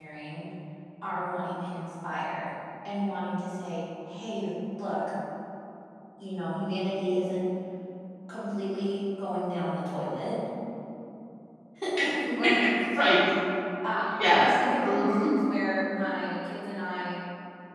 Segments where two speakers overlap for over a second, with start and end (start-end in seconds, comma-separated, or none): 14.1-15.3